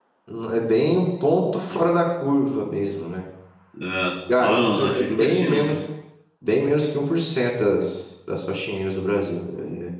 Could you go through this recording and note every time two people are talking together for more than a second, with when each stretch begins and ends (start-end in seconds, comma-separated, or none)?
4.4-5.8